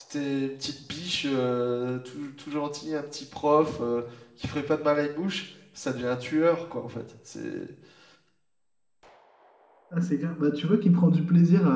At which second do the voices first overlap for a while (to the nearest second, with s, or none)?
none